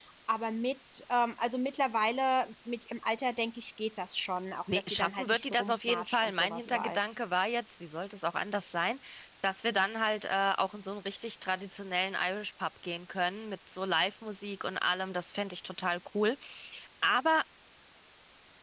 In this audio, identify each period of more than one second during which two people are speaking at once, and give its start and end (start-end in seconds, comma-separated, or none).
4.7-7.0